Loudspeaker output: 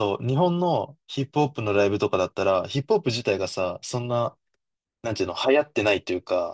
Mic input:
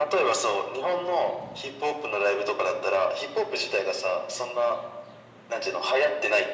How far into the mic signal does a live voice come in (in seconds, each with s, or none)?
none